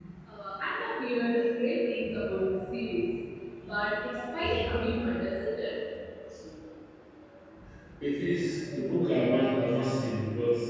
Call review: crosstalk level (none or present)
none